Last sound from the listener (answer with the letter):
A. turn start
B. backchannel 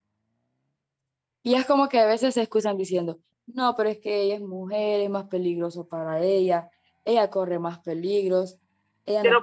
A